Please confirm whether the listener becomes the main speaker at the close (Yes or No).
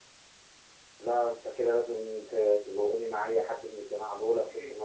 Yes